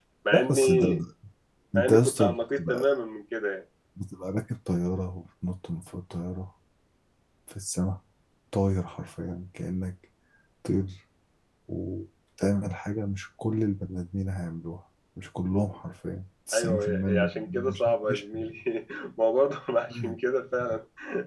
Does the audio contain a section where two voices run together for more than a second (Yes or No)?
Yes